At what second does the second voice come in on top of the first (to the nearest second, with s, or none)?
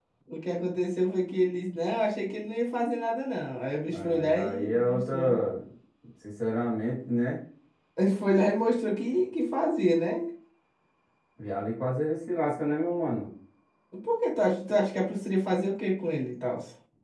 4 s